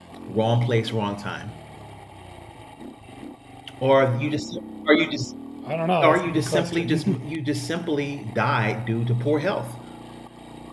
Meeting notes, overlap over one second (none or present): present